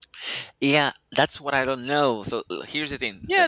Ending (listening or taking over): taking over